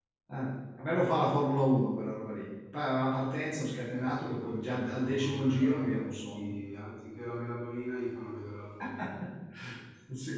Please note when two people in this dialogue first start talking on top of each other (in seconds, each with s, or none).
3.9 s